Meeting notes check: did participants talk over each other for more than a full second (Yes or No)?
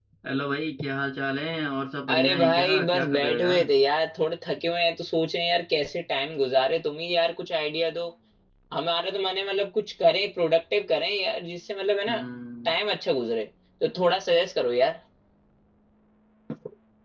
Yes